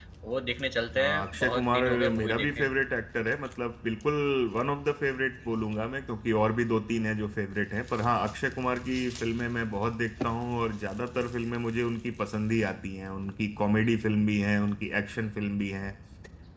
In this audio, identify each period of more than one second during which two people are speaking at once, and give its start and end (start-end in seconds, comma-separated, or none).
1.0-2.7